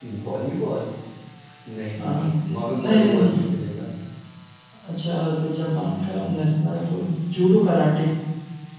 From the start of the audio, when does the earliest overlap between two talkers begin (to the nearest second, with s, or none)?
2 s